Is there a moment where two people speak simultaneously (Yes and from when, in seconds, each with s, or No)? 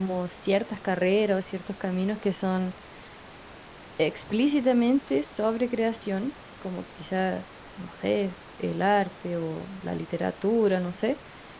No